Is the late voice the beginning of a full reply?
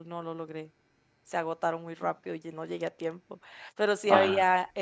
No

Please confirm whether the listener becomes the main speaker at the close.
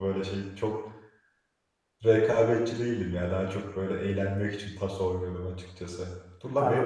No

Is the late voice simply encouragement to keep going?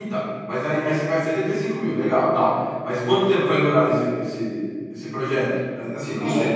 No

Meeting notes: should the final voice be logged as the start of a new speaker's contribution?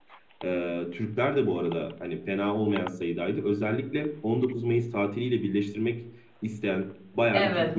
No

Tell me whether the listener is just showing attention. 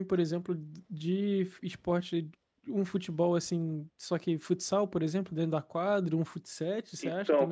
No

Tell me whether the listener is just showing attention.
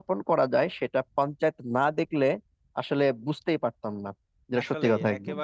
No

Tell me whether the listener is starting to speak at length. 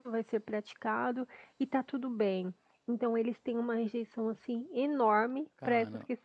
No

